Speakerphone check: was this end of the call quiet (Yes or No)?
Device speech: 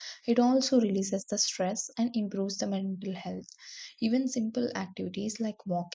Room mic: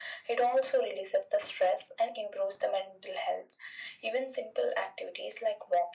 Yes